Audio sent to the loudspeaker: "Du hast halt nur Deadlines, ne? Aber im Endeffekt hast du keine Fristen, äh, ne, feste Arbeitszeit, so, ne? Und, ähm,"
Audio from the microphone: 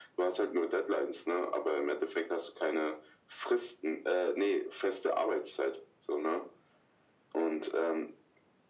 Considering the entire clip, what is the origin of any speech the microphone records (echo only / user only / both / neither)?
echo only